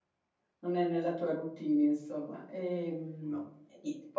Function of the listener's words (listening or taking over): listening